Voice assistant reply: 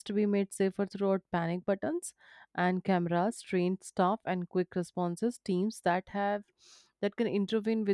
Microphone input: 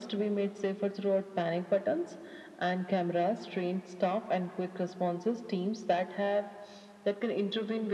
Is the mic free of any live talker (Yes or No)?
Yes